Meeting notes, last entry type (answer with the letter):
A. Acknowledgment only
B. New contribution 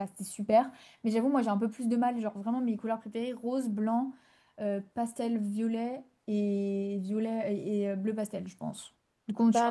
B